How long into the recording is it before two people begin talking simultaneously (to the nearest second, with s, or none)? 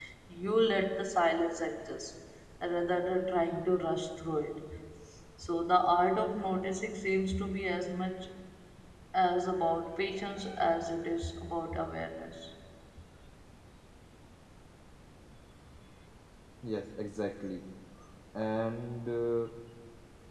none